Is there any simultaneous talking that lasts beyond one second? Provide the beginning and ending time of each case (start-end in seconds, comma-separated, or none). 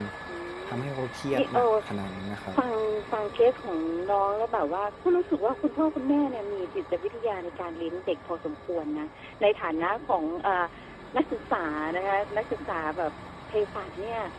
none